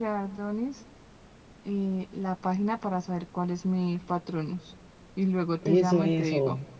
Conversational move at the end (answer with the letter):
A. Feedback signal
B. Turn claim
B